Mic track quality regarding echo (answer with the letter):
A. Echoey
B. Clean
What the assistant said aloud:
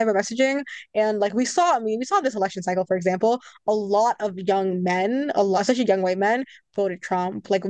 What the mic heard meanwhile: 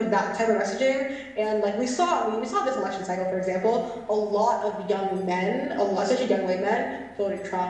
A